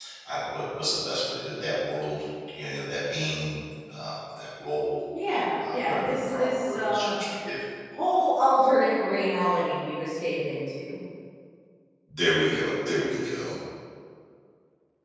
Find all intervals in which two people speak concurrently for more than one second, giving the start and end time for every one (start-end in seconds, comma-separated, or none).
5.6-7.1